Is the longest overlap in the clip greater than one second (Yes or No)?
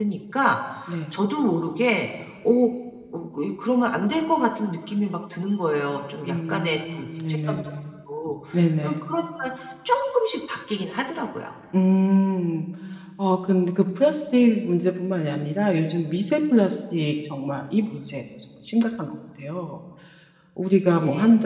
Yes